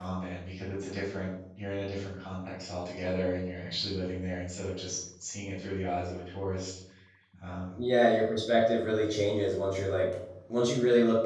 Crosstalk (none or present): none